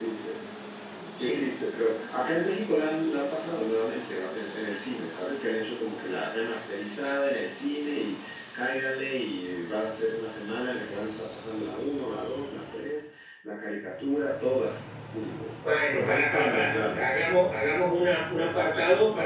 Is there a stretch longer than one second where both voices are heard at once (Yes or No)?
Yes